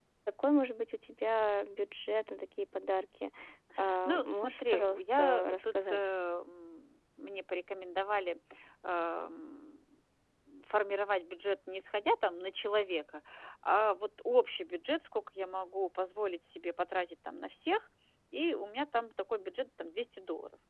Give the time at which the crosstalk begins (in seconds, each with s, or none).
4.0 s